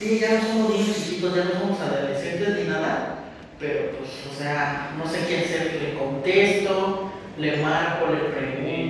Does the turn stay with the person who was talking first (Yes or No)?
No